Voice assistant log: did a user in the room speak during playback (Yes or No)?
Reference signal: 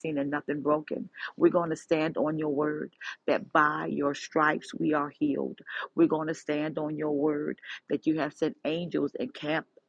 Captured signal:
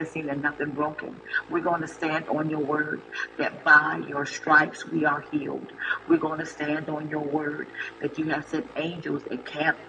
No